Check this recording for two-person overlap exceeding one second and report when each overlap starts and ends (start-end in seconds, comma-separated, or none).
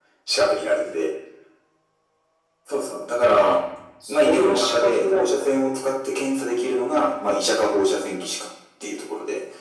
4.1-5.5